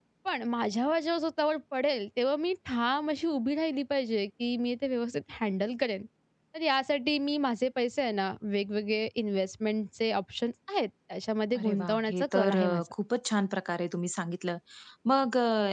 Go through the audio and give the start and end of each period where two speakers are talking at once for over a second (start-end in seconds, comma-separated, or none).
11.6-12.8